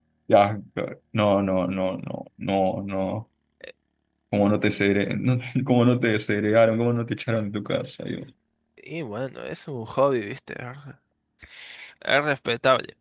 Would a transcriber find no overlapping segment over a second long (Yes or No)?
Yes